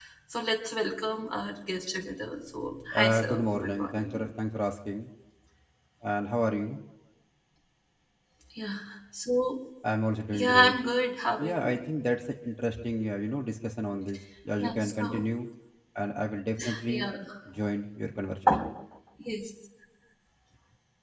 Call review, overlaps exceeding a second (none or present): present